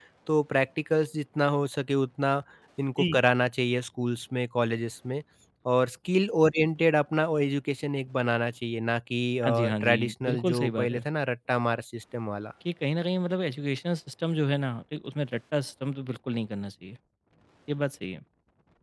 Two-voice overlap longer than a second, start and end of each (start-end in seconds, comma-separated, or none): 9.4-11.0